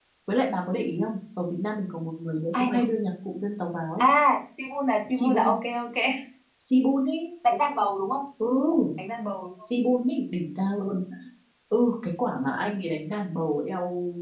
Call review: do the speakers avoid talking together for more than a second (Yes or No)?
Yes